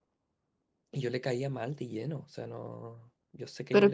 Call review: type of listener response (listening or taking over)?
taking over